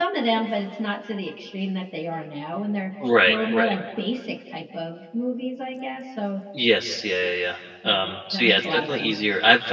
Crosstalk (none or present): present